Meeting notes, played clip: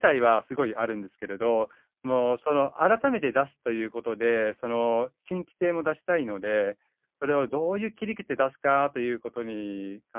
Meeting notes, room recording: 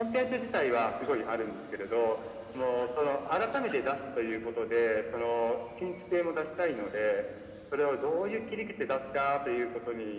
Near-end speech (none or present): none